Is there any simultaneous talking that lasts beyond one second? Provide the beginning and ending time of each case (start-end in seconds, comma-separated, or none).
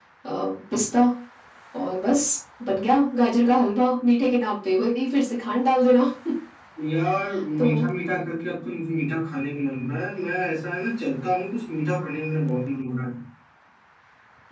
none